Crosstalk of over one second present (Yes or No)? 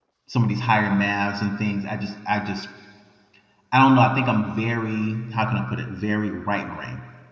No